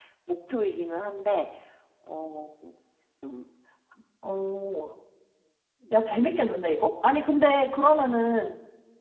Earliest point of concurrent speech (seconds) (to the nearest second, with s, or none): none